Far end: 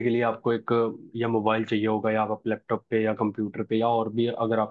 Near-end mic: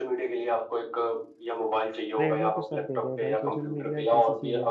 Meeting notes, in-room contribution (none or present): present